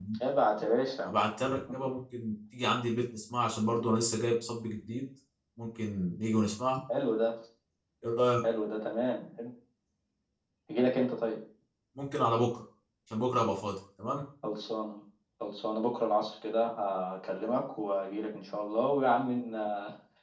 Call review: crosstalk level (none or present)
none